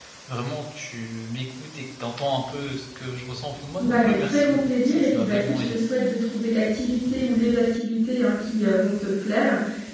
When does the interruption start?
4 s

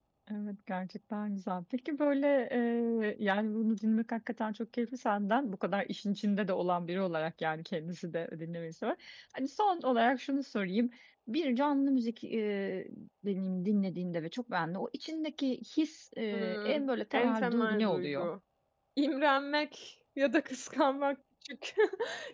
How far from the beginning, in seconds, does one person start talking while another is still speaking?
16 s

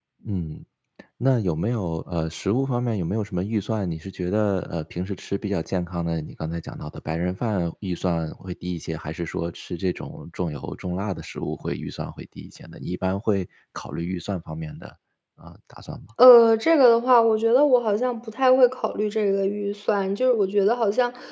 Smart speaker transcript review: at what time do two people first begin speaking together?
none

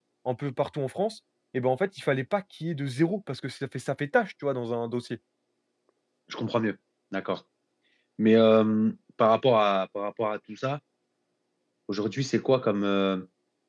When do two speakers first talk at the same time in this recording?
none

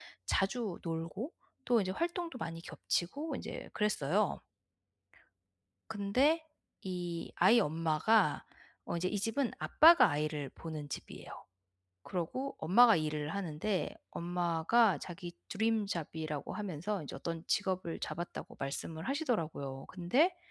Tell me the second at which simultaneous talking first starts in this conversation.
none

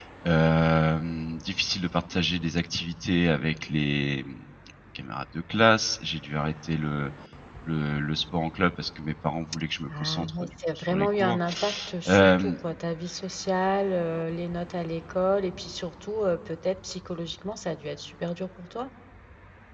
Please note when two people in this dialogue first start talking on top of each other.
10 s

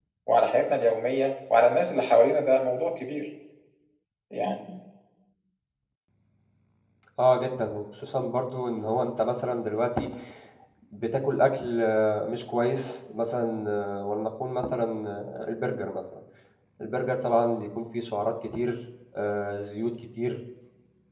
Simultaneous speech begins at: none

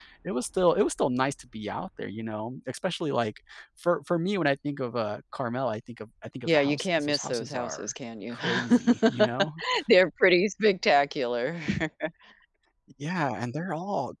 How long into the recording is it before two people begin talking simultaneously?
6 s

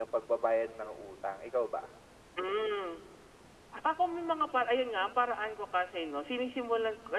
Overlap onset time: none

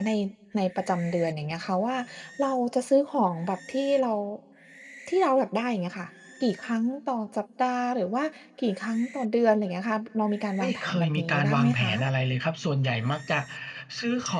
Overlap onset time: 11 s

